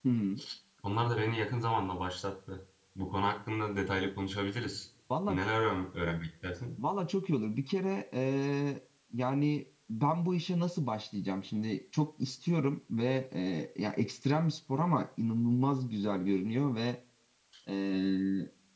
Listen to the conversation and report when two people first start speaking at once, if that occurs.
none

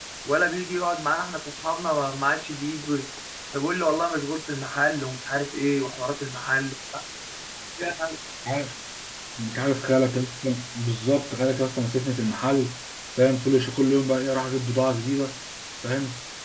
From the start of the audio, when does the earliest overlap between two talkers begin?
none

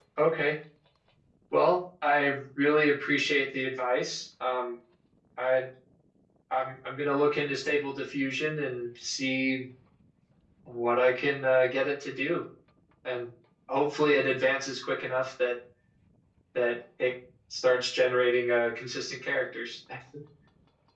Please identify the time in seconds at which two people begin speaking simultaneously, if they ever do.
none

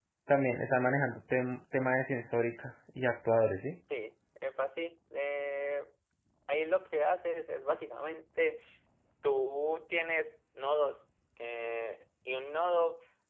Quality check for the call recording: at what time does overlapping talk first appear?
none

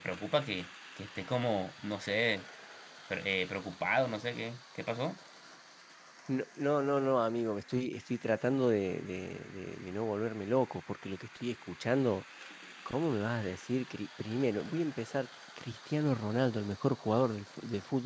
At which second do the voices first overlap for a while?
none

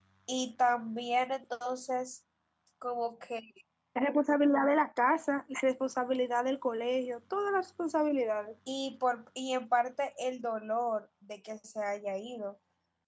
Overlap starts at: none

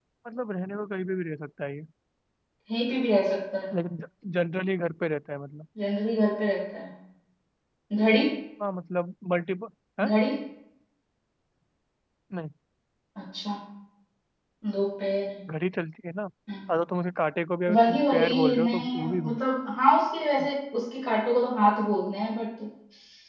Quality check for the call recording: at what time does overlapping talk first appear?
17.7 s

